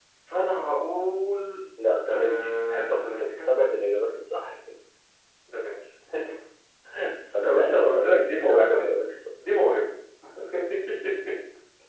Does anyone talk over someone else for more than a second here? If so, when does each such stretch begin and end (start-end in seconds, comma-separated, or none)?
2.1-3.5, 7.4-8.8